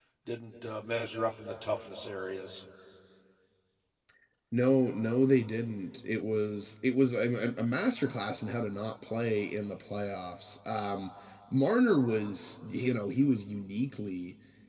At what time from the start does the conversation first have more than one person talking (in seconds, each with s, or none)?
none